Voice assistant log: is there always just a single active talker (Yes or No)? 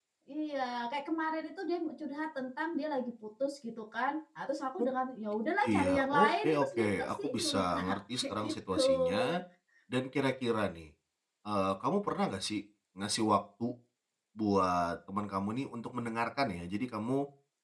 No